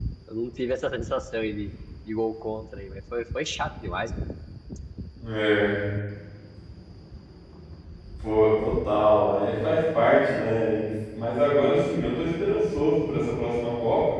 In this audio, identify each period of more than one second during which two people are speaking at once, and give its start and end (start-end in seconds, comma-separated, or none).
none